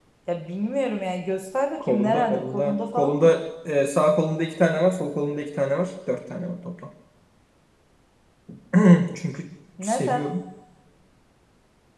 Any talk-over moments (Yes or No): Yes